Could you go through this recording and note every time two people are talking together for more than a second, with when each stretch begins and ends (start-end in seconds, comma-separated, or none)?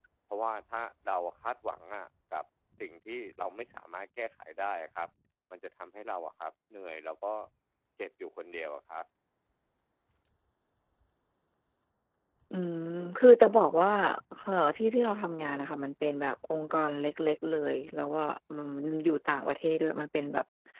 none